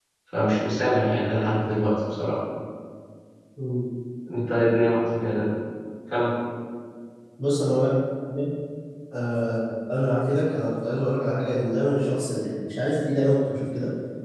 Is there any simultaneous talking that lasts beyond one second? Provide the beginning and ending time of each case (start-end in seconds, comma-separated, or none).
none